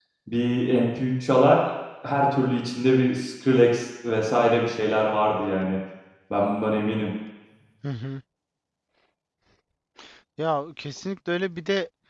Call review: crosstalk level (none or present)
none